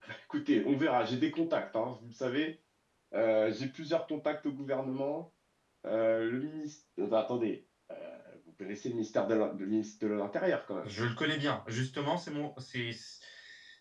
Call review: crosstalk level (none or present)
none